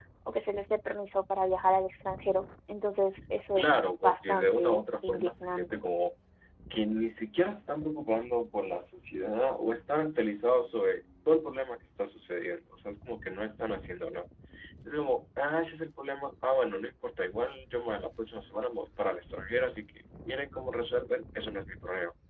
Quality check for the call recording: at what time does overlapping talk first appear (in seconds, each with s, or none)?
3.6 s